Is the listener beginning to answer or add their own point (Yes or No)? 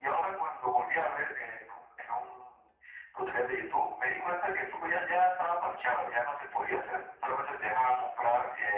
No